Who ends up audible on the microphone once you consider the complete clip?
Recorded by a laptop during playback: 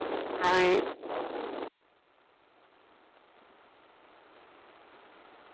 user only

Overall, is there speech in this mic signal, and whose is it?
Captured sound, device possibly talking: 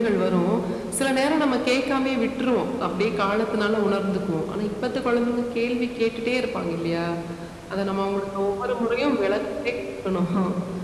echo only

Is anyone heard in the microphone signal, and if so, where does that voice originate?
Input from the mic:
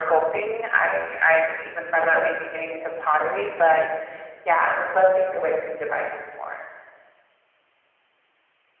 echo only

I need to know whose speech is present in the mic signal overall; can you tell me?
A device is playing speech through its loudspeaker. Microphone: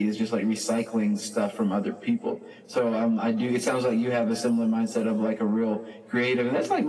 echo only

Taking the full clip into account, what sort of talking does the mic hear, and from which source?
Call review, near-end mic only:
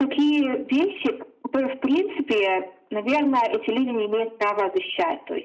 echo only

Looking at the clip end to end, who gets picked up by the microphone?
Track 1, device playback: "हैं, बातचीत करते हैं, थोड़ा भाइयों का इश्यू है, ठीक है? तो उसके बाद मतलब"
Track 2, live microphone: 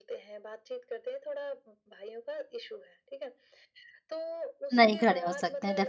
both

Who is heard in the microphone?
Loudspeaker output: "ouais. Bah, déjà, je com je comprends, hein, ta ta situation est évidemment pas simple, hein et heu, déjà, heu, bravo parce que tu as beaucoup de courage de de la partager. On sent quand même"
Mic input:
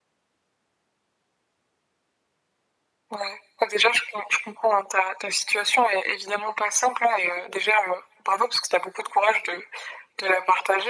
echo only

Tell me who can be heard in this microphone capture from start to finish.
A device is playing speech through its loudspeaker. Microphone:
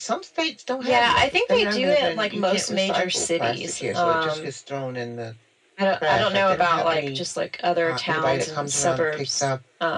echo only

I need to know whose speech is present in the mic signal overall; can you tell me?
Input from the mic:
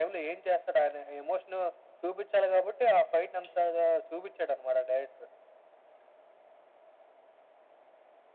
echo only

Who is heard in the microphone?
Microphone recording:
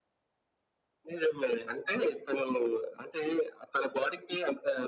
echo only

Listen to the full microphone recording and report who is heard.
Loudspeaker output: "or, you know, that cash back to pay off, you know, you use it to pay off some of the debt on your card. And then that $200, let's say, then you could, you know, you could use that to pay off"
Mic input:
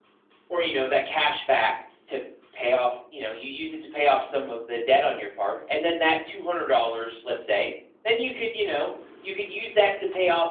echo only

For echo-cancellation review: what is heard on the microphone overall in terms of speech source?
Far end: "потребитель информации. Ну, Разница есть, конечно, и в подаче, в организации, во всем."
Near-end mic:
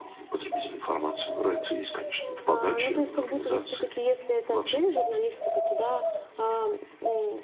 both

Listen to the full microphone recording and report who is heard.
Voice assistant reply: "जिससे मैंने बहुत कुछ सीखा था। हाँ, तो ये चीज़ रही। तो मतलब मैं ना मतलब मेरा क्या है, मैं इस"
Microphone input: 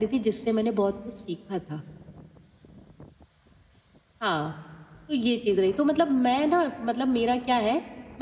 echo only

